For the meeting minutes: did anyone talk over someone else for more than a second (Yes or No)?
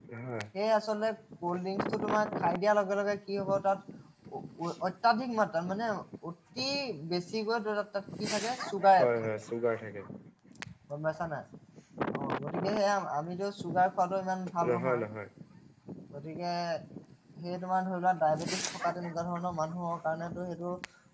No